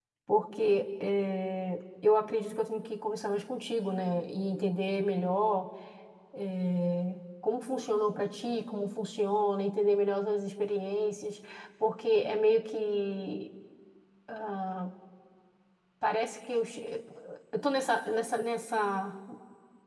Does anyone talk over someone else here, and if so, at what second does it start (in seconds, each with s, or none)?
none